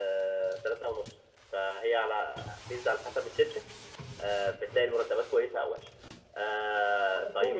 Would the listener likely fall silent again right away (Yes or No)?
No